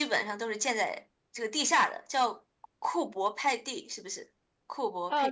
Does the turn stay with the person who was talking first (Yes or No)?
No